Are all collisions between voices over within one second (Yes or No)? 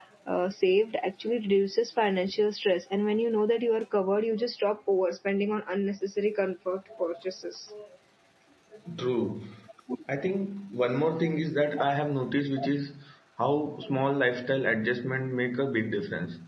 Yes